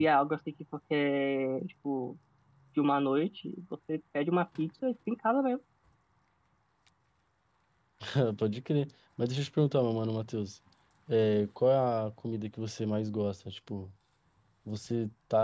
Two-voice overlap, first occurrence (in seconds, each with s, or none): none